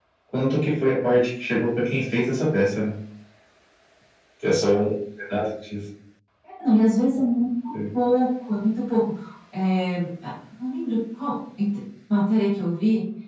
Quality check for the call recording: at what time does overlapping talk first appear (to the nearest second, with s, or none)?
none